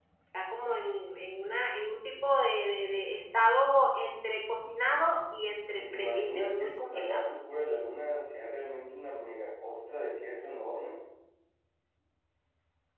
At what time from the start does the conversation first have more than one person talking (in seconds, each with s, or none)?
5.8 s